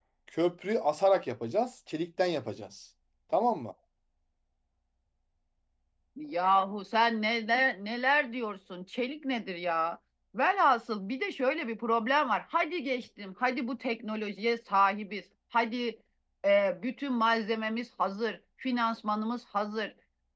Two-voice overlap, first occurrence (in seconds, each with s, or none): none